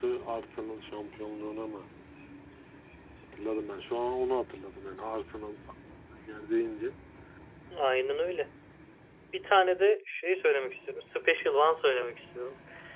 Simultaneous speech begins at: none

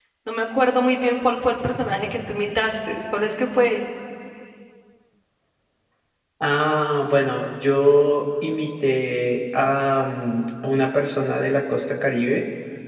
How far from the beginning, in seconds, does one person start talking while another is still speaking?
none

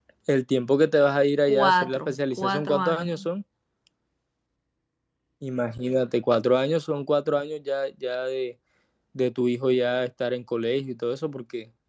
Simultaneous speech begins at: 1.5 s

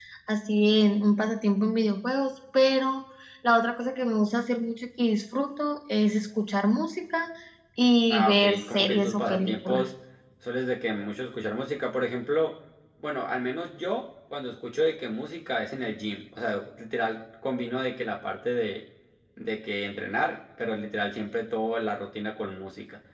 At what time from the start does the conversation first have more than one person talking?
8.1 s

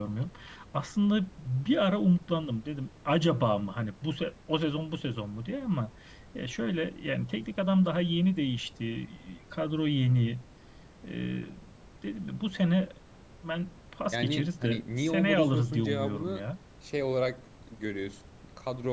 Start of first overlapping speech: 14.1 s

